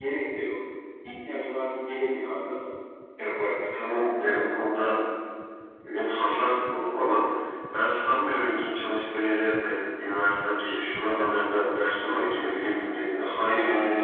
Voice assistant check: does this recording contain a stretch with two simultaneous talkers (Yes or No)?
No